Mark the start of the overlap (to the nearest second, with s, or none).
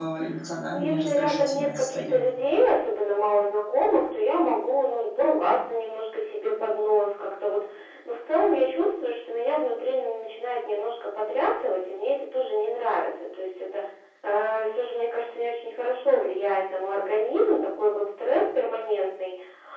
1 s